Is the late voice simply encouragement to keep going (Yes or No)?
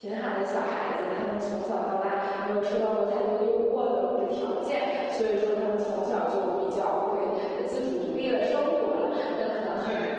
Yes